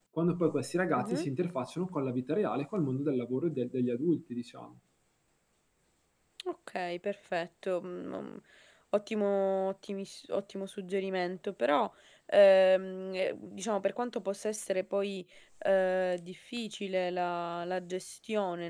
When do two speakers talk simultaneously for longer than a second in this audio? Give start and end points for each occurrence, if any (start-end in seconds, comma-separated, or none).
none